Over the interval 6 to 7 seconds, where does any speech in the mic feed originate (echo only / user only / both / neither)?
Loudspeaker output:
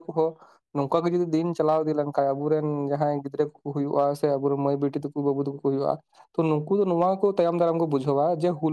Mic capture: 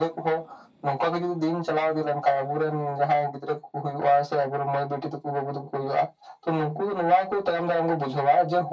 echo only